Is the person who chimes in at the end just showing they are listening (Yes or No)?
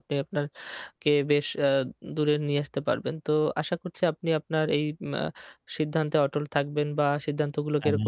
Yes